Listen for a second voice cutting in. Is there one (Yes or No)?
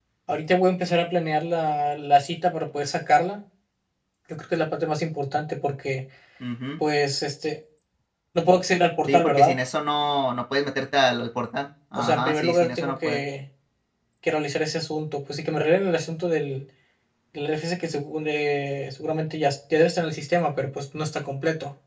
Yes